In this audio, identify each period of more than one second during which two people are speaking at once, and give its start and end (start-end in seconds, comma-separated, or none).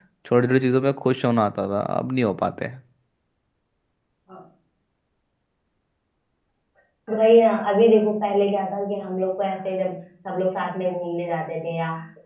none